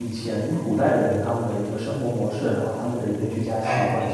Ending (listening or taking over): taking over